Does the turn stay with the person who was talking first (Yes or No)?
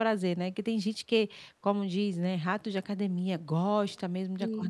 Yes